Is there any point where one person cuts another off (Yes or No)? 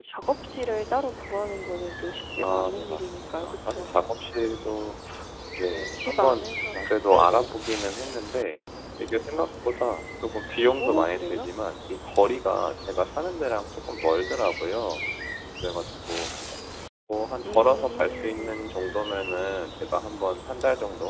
Yes